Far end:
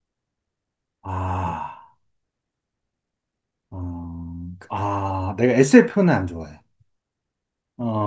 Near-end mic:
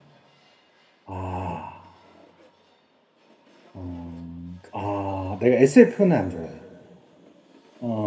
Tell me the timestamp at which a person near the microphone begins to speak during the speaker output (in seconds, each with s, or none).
none